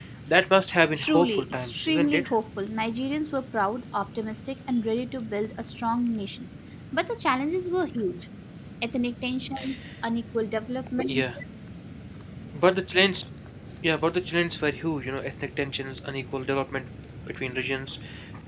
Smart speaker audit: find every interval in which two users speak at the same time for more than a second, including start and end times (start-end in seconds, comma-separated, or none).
1.0-2.3